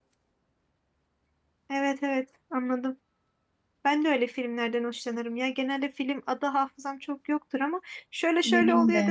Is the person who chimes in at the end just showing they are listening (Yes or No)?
Yes